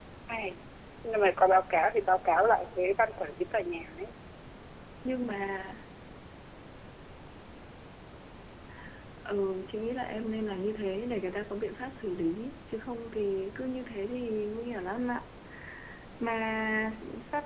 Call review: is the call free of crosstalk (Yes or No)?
Yes